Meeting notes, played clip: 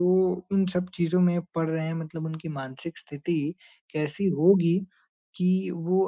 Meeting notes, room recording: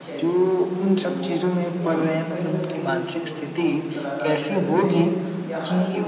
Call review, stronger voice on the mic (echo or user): echo